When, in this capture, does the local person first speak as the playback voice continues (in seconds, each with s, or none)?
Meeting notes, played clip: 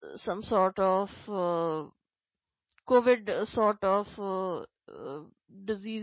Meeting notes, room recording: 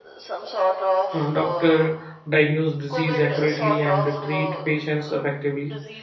1.1 s